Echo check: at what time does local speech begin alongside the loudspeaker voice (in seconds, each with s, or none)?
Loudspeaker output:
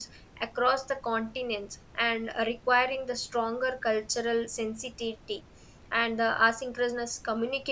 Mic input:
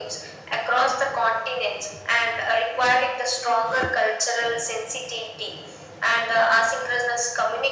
none